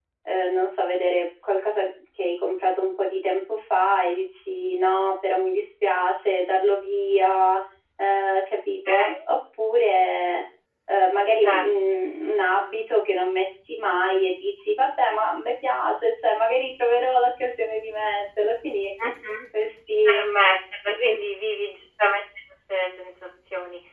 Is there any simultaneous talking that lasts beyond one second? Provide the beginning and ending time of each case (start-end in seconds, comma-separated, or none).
none